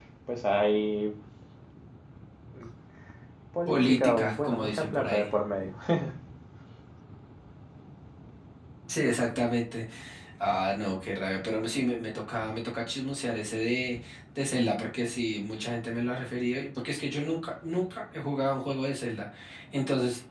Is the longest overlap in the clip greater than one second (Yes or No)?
Yes